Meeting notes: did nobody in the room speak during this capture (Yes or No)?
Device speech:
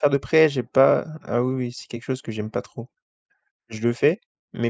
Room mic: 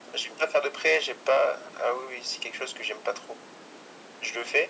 Yes